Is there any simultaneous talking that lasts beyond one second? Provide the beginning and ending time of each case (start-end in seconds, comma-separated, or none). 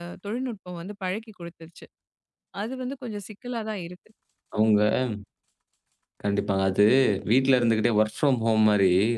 none